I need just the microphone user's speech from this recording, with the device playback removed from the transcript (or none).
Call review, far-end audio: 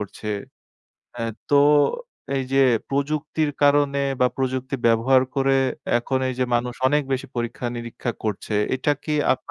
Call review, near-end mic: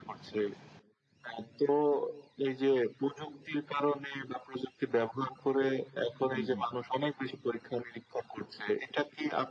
হু, হু, হুম।